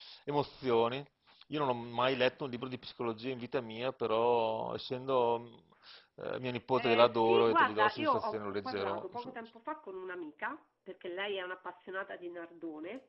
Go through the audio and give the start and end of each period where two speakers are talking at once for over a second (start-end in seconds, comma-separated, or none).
6.7-9.3